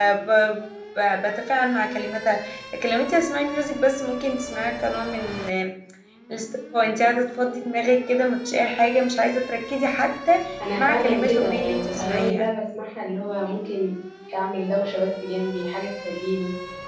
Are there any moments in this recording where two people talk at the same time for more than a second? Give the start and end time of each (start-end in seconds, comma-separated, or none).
10.7-12.5